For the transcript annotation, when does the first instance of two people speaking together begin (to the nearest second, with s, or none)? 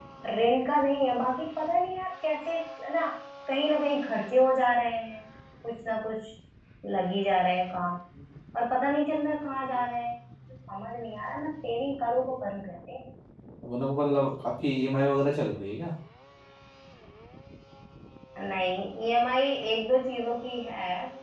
none